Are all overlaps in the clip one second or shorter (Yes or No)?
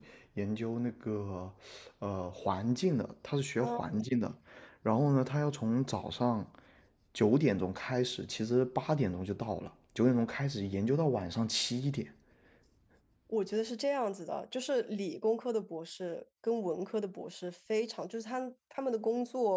Yes